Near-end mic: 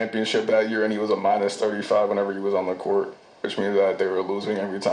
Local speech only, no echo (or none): none